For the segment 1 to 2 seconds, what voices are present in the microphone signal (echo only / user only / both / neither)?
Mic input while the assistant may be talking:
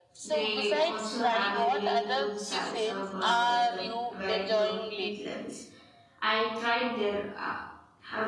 both